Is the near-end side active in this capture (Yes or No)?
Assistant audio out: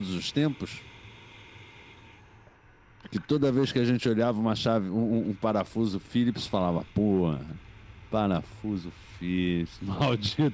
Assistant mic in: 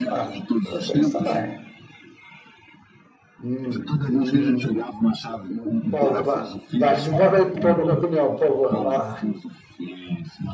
Yes